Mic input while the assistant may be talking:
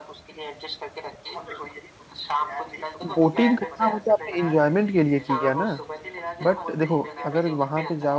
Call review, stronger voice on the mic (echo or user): user